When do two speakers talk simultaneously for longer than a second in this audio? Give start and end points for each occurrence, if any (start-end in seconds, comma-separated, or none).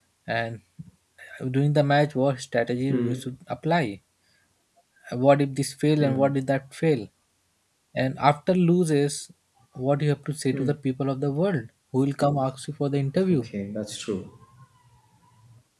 none